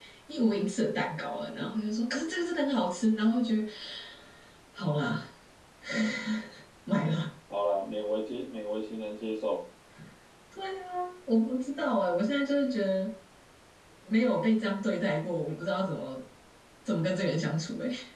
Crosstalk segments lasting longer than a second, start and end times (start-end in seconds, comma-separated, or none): none